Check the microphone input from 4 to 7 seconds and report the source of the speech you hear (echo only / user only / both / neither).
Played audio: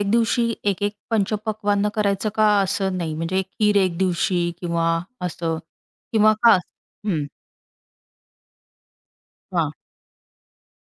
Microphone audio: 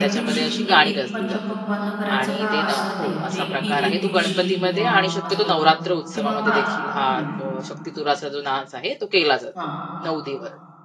both